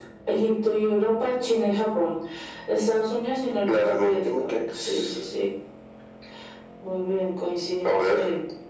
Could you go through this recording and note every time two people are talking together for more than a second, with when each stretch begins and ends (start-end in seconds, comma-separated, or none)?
3.7-5.1